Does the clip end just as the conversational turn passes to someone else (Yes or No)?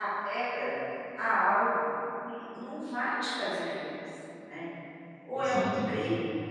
No